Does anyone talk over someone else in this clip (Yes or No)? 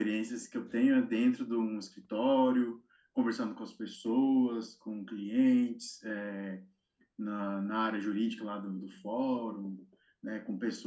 No